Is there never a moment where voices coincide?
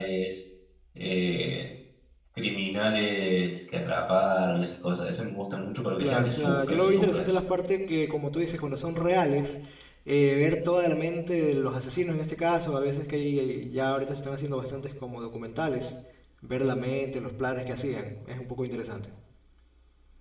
No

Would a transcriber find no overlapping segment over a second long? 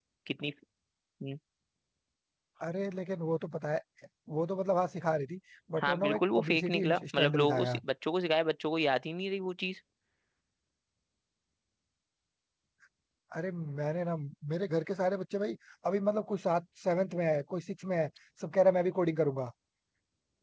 No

